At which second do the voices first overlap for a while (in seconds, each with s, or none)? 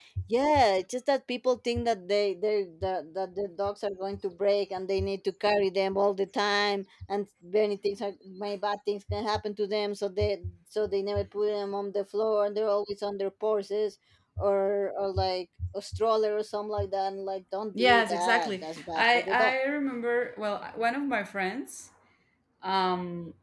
17.8 s